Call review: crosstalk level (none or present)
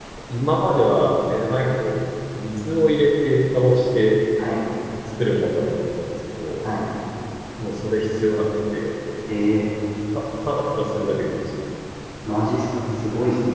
none